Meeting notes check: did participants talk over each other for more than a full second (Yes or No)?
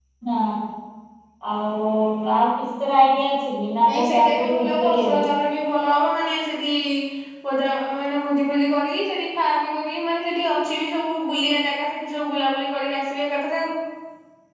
Yes